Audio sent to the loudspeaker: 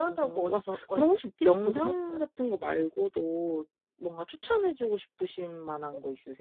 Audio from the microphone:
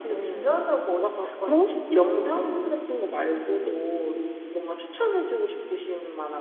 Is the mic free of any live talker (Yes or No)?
Yes